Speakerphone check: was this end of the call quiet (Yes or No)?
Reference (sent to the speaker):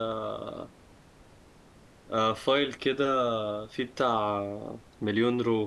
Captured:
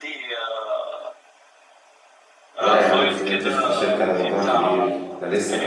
No